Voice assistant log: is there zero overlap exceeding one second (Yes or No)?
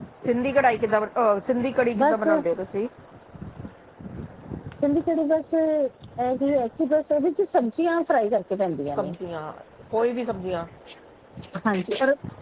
Yes